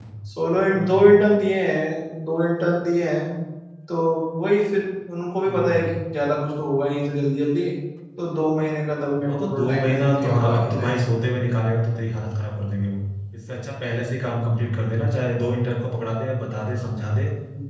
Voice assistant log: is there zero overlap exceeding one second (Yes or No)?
No